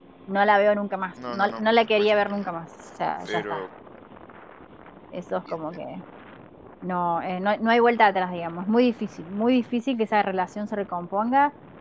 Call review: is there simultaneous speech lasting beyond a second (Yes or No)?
Yes